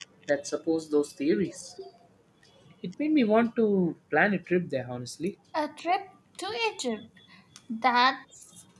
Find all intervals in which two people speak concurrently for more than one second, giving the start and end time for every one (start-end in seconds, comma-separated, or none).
none